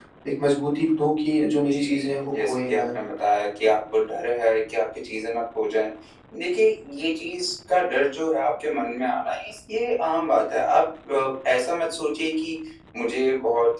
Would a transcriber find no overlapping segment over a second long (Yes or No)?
No